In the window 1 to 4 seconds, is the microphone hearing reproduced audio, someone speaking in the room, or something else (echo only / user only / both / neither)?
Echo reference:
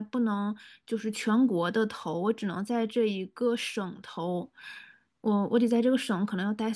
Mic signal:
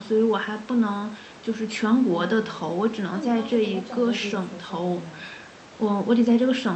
both